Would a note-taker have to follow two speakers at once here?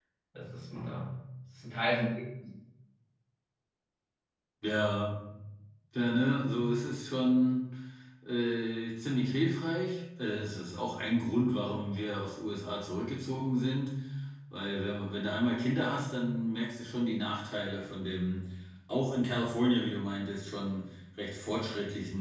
No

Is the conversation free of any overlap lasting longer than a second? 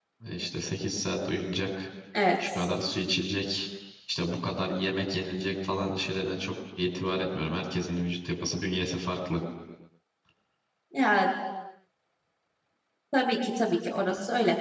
Yes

